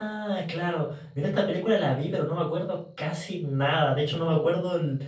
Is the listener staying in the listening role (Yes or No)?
Yes